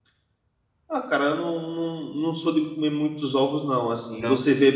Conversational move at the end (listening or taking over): listening